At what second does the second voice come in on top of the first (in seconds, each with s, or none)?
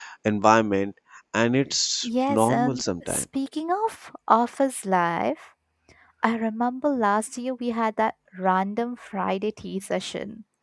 2.0 s